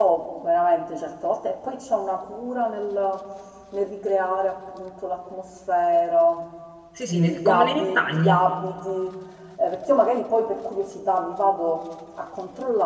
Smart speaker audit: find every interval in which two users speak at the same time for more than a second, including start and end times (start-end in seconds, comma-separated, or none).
7.1-8.4